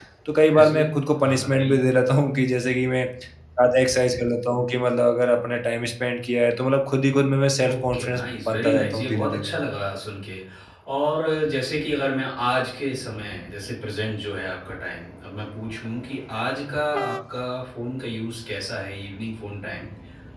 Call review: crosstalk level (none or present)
present